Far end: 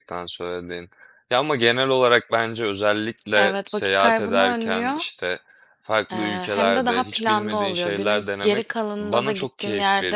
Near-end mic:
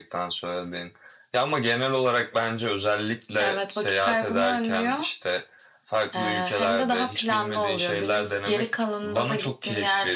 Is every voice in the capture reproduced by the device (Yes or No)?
Yes